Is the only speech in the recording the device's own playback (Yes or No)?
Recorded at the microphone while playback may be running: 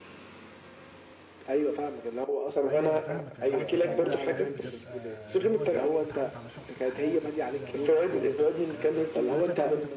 No